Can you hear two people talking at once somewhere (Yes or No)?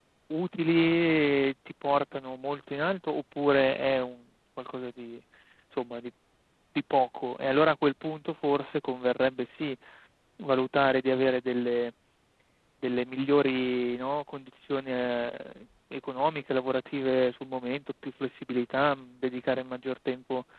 No